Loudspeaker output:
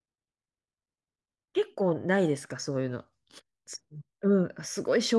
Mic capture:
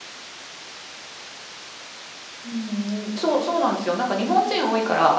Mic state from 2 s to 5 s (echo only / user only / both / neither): user only